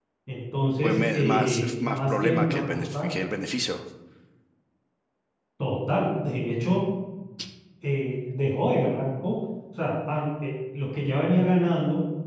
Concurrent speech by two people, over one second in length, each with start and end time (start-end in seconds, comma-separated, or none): 0.8-3.1